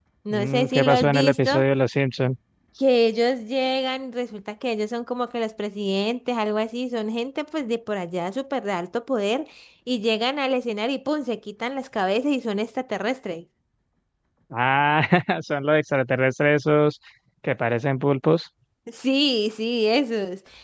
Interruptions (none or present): present